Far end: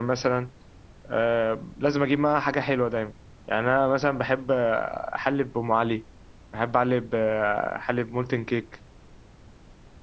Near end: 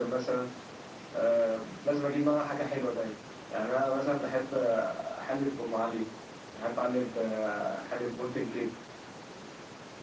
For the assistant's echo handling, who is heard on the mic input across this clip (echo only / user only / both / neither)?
echo only